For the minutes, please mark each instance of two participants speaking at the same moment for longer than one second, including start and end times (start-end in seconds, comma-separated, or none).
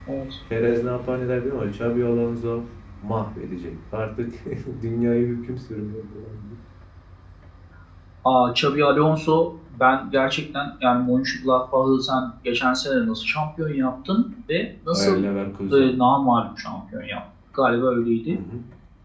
none